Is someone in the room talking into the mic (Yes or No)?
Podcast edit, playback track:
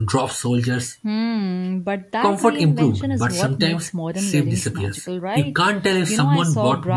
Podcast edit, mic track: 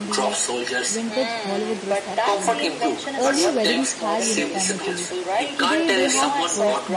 Yes